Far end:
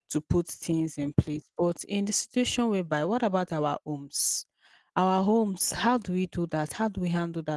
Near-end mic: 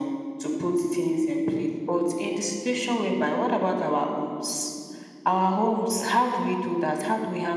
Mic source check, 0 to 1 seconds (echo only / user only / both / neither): echo only